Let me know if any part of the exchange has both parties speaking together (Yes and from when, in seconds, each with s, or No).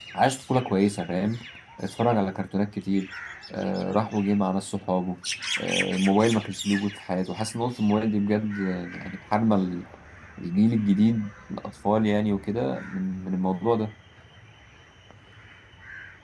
No